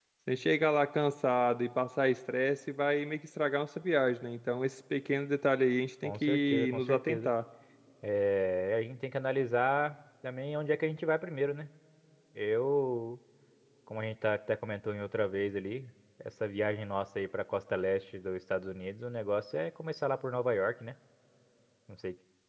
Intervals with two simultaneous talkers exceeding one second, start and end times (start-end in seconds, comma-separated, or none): 6.0-7.3